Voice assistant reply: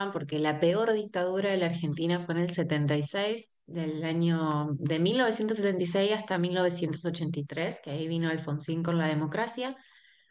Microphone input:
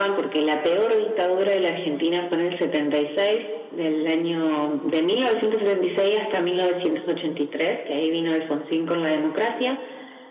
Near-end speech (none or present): none